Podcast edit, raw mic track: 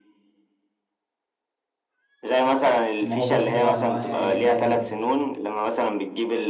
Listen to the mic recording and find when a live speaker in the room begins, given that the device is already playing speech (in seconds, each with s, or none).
3.0 s